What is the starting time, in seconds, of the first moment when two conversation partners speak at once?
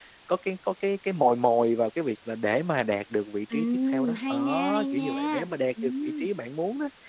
3 s

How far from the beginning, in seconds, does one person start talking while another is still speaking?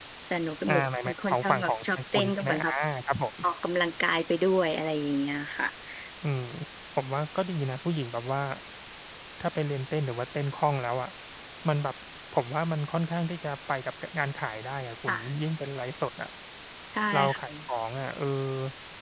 1 s

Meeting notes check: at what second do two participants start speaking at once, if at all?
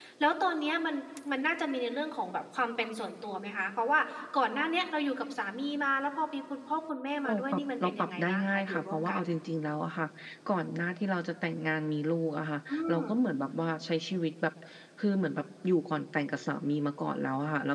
7 s

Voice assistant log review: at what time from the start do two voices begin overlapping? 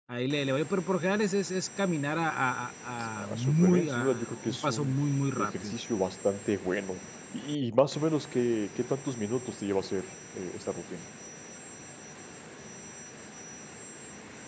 3 s

